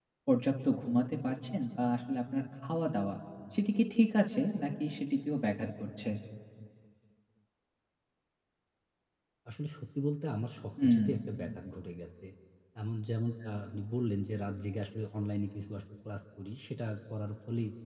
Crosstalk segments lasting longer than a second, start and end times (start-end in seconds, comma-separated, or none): none